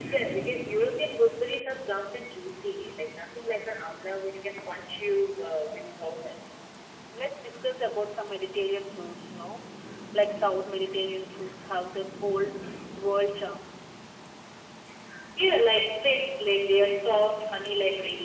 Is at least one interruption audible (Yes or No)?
No